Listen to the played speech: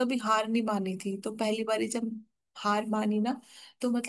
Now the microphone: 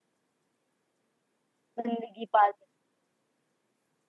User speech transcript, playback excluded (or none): जिंदगी पाल सकते